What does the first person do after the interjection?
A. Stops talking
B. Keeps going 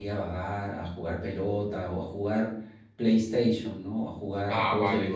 A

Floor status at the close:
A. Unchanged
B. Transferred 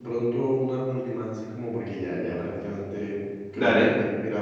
A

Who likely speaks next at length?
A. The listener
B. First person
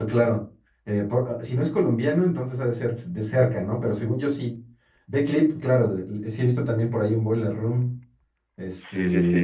A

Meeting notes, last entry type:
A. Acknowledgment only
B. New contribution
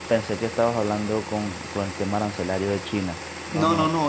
B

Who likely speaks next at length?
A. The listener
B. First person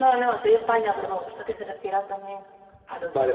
A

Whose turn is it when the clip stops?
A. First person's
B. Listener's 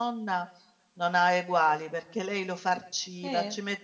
A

